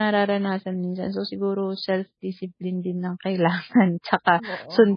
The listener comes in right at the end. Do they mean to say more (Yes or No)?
No